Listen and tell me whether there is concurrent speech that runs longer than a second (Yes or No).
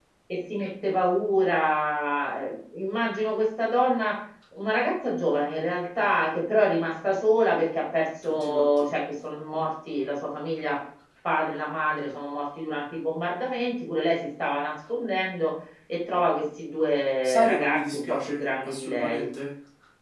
Yes